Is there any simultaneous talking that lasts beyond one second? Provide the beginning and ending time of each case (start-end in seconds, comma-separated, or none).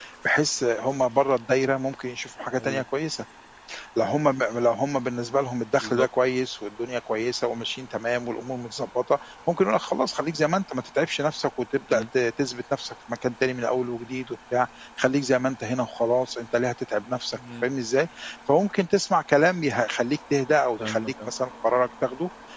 none